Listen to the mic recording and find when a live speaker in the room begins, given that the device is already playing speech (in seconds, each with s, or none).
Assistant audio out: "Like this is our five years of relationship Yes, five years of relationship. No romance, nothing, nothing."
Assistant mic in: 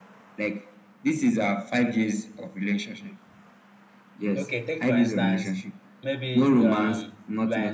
4.3 s